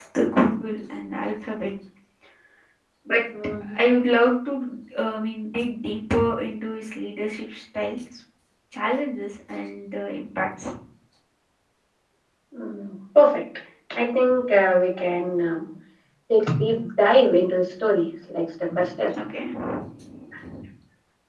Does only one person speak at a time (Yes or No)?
Yes